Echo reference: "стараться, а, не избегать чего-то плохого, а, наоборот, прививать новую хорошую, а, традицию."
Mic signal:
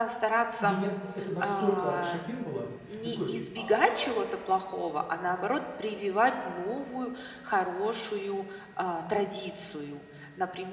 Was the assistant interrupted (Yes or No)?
Yes